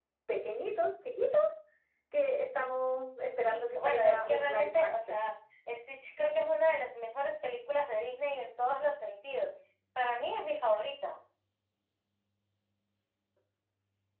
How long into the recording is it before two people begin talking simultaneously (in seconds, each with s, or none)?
3.5 s